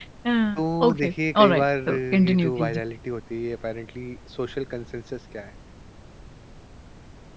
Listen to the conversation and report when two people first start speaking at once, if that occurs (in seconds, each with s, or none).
0.6 s